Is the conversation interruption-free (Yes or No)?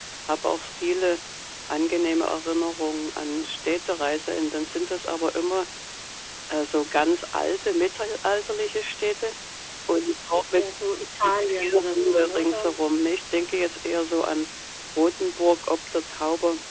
No